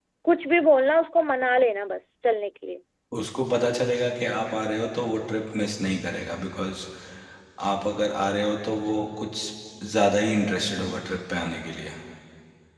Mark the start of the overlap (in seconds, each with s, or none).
none